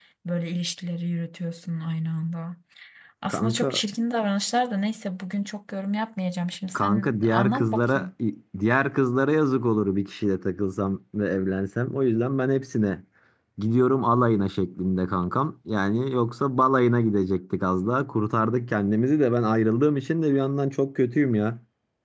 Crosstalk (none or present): present